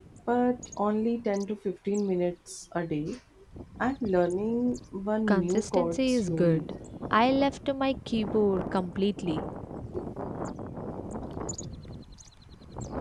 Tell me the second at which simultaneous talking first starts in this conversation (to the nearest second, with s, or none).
5 s